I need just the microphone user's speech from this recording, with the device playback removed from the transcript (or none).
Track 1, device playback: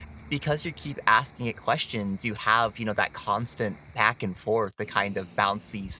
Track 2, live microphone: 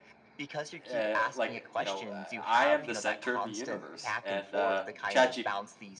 uh, like uh, you know uh, i am the center of the universe and uh chat